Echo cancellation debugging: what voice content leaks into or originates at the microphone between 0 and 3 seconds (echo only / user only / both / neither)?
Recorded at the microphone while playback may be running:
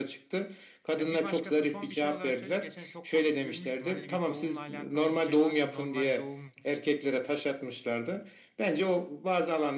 both